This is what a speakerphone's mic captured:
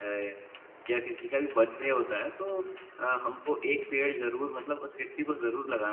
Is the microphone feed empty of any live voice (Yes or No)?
Yes